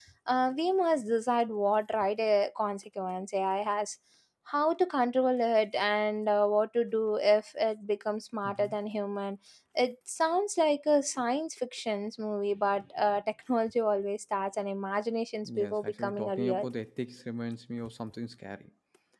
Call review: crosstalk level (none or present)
present